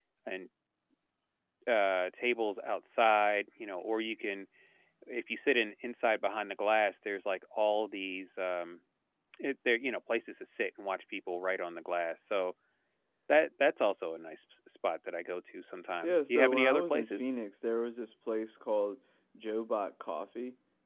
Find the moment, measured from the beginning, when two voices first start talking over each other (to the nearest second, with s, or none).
16 s